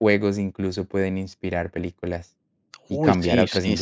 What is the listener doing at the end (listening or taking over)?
taking over